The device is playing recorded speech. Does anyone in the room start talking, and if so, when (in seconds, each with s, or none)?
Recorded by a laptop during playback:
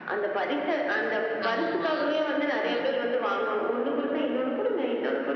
1.5 s